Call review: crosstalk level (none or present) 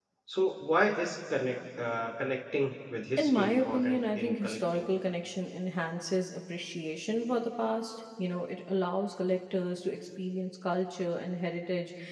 present